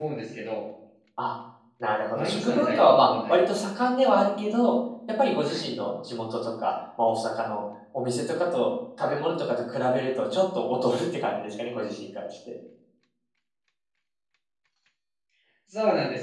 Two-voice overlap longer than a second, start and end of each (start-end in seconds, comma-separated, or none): 2.1-3.9